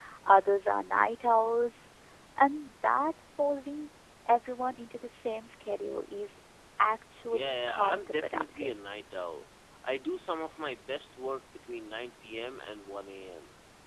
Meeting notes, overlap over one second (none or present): present